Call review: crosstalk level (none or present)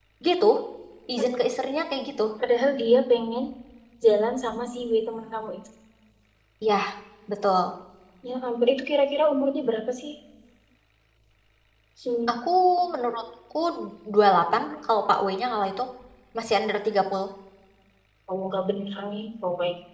none